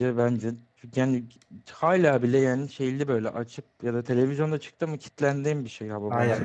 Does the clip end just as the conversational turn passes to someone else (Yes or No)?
Yes